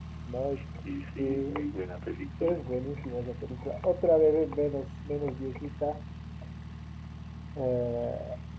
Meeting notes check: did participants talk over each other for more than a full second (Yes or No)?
No